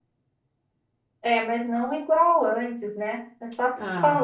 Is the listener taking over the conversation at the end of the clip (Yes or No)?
Yes